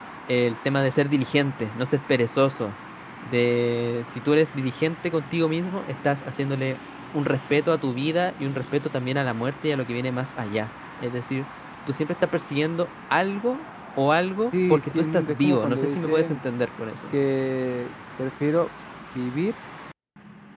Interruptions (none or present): present